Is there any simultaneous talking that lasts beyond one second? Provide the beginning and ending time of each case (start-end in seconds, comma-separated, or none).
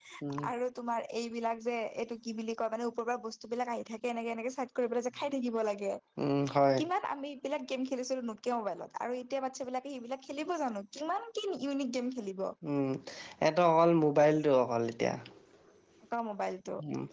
none